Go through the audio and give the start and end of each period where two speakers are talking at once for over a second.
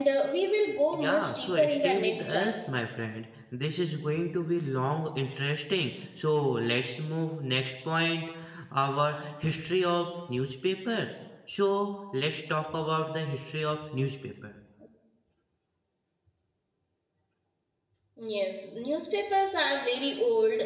0.9-2.6

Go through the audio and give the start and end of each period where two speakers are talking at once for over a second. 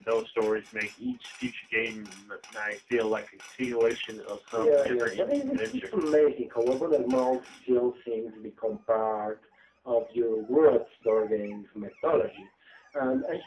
4.5-5.9

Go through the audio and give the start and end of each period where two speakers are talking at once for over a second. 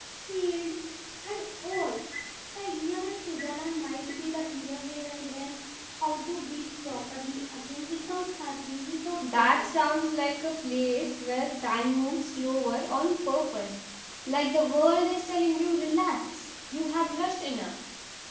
none

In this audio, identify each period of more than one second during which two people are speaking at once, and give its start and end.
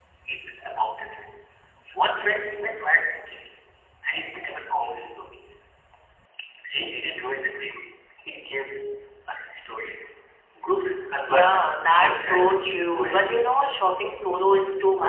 11.3-13.8

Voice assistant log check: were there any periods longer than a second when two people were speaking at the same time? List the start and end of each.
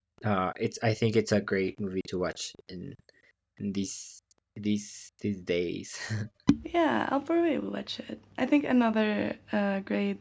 none

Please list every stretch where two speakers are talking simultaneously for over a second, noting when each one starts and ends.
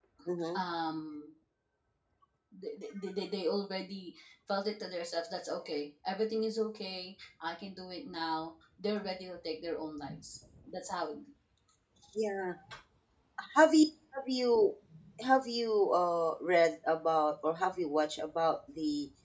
none

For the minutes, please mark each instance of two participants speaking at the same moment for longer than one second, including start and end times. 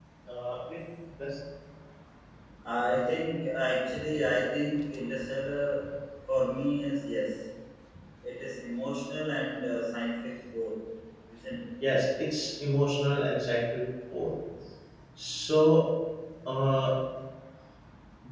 none

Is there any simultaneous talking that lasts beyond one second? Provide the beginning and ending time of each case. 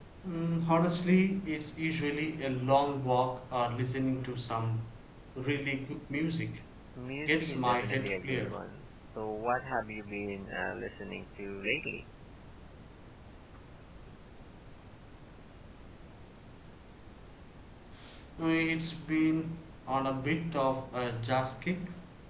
7.3-8.6

